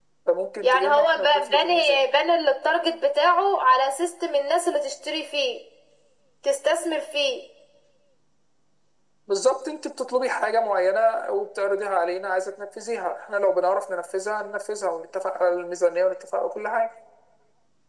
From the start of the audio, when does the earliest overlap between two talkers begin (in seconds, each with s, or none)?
0.6 s